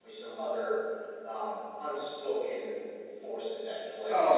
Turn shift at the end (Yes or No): Yes